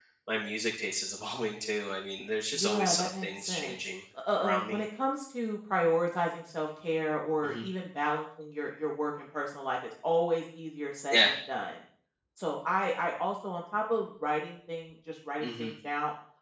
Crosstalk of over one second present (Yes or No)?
Yes